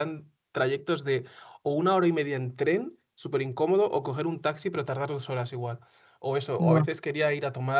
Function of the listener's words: listening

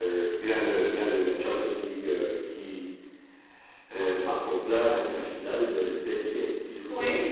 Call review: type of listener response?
listening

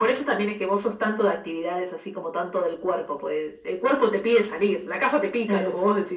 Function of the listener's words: taking over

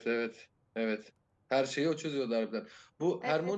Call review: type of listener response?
listening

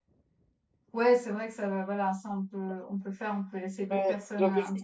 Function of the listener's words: taking over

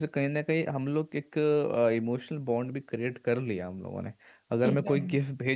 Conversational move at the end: listening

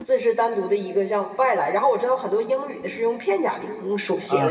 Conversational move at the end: taking over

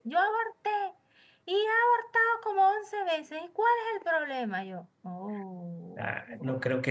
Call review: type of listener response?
taking over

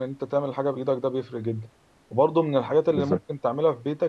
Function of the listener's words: listening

